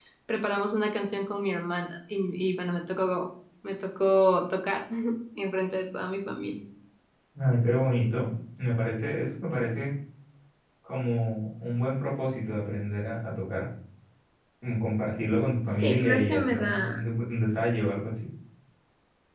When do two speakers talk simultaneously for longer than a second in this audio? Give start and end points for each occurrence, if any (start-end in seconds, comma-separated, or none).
15.7-17.0